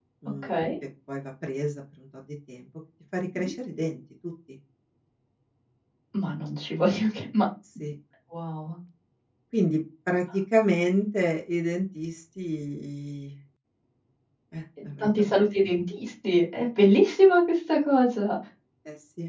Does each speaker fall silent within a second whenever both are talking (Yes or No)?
Yes